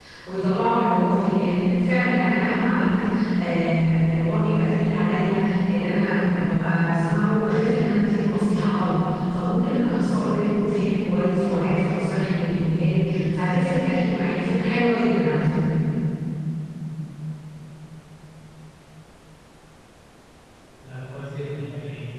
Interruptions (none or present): none